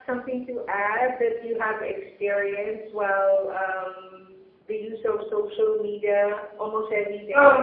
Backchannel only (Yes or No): No